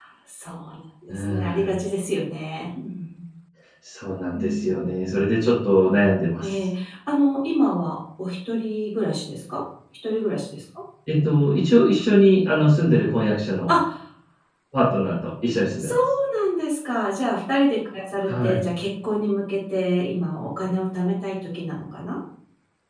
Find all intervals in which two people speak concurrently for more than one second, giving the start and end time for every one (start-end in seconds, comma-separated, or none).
none